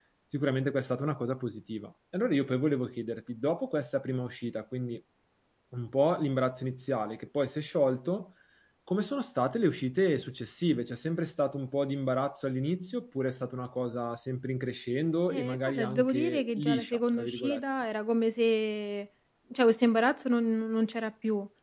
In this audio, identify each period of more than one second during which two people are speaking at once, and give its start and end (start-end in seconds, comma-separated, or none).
15.3-17.6